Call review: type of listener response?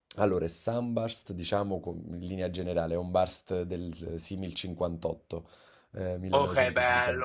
taking over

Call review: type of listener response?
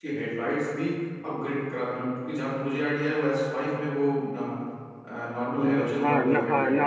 taking over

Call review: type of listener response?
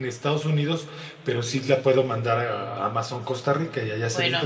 taking over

